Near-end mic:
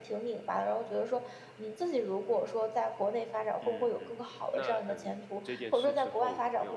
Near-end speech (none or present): present